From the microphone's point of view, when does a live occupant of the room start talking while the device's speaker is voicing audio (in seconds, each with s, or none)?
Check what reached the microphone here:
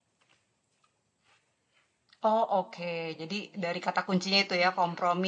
2.2 s